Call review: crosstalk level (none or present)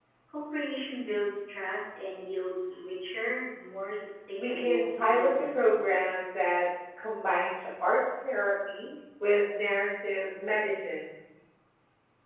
present